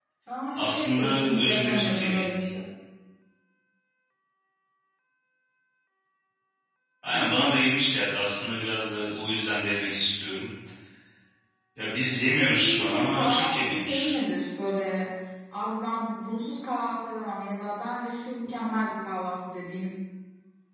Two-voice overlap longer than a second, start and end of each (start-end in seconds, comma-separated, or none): 0.6-2.3, 12.4-14.2